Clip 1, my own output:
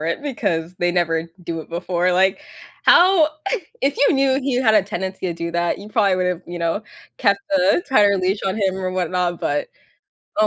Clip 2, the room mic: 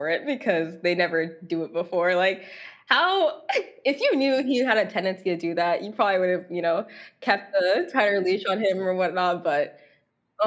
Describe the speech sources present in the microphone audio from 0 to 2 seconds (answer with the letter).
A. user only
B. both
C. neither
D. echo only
D